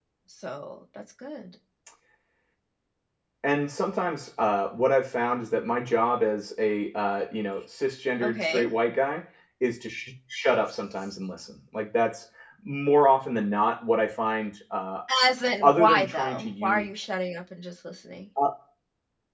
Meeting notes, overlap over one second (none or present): present